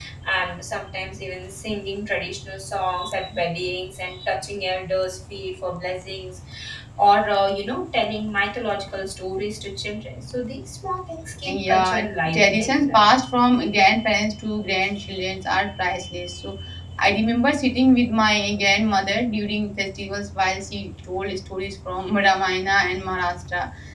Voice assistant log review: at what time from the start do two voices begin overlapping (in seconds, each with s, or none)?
11.4 s